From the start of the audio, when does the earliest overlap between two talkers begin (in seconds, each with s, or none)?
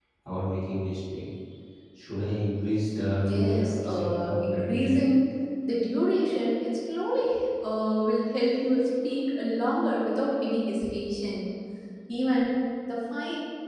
3.2 s